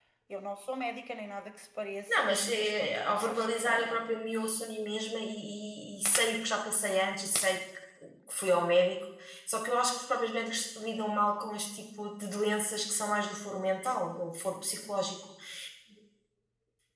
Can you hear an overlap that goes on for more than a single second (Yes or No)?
Yes